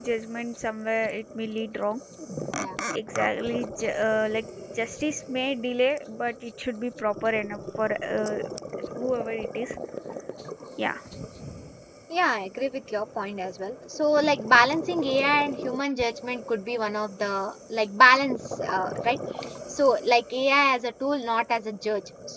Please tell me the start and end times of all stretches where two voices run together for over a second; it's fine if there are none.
none

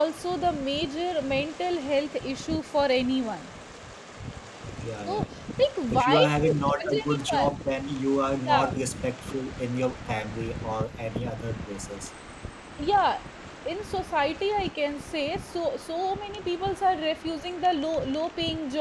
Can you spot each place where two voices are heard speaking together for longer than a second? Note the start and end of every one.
5.9-7.5

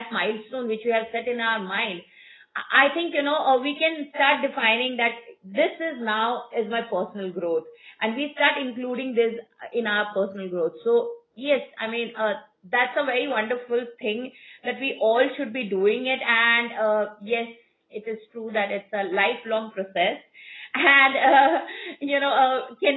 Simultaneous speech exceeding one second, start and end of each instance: none

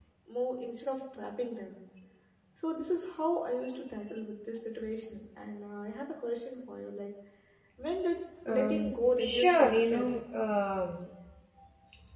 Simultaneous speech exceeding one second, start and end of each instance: 8.5-10.2

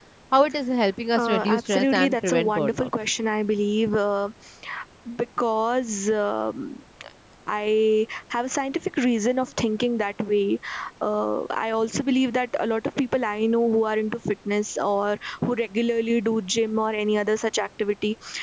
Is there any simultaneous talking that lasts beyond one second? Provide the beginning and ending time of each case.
1.2-2.9

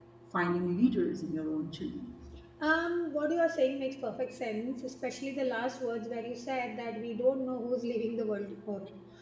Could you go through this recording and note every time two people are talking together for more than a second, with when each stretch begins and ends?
none

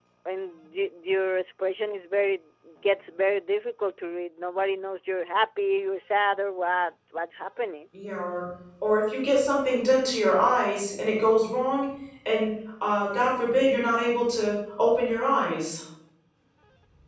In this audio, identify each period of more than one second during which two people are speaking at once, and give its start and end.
none

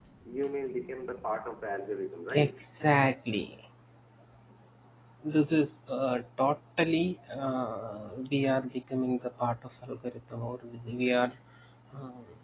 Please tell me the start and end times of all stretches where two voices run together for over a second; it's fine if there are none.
none

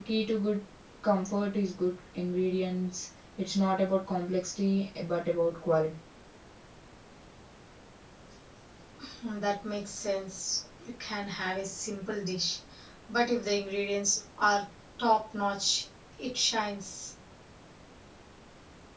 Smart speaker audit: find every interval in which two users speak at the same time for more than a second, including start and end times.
none

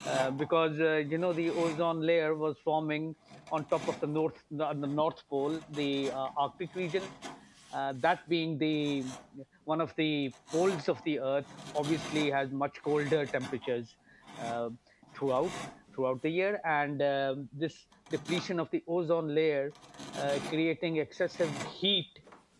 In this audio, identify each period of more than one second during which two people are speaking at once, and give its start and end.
none

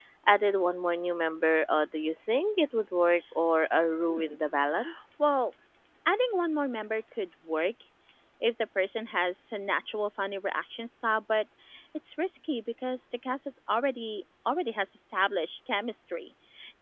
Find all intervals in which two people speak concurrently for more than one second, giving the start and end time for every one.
none

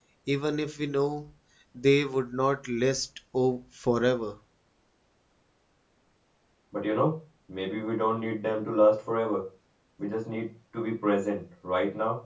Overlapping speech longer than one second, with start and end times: none

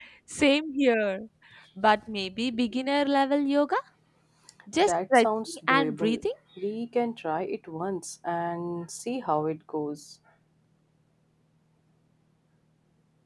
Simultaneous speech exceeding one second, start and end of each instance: 4.8-6.2

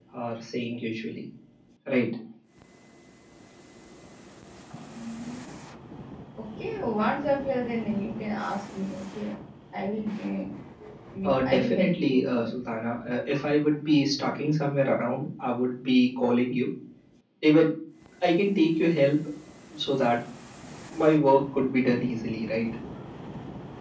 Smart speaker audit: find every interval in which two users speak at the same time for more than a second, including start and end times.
11.2-12.5

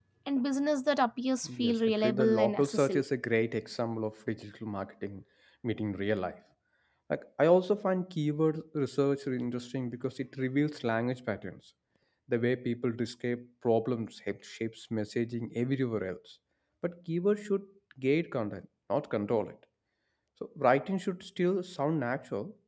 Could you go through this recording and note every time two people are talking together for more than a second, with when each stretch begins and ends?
1.6-3.0

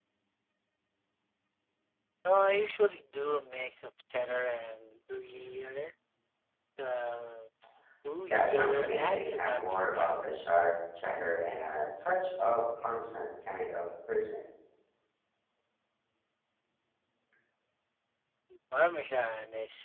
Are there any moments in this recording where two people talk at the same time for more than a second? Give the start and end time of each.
8.3-10.2

